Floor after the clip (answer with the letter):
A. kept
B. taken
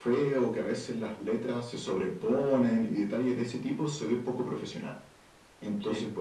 A